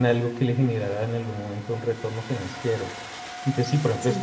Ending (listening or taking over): listening